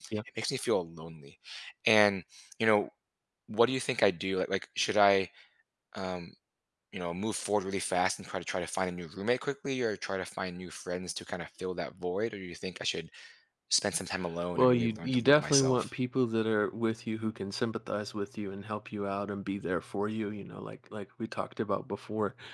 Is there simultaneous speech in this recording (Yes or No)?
Yes